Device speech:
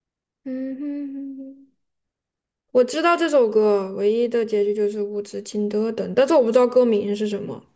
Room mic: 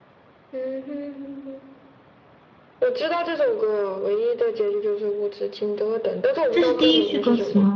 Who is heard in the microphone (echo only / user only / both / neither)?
both